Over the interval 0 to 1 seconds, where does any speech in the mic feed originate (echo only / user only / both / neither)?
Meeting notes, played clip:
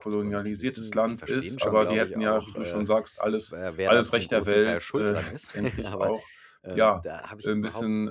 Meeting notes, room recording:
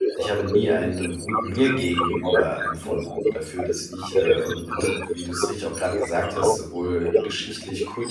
both